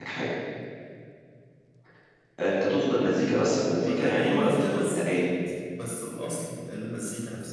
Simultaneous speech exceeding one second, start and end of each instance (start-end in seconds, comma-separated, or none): 3.6-5.3